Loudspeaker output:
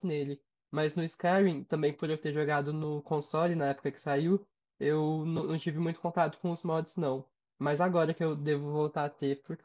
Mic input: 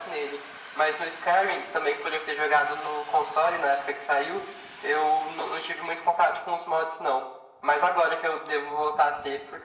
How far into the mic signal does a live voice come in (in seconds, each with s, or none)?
none